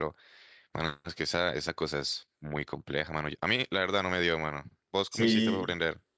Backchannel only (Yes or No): No